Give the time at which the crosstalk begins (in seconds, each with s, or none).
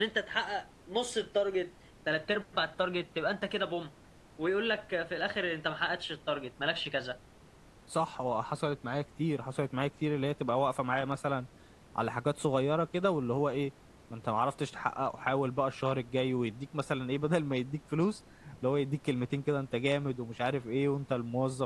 none